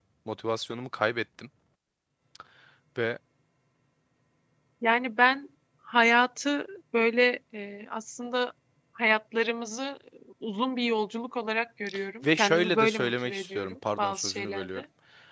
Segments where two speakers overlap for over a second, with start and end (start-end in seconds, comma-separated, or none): 12.4-14.8